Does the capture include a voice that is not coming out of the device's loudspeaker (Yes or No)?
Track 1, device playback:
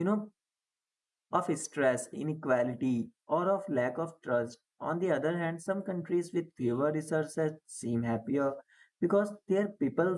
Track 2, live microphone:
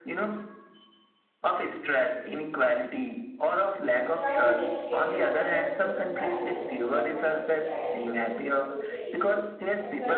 Yes